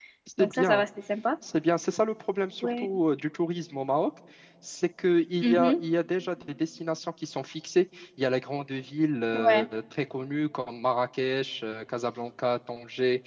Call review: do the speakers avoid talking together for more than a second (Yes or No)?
Yes